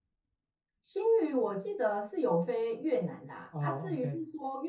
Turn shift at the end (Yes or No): No